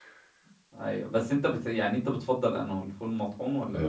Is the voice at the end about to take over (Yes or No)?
Yes